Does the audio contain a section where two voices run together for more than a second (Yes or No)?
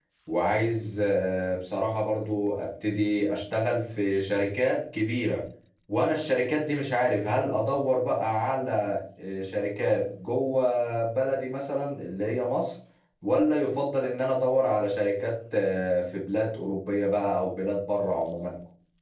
No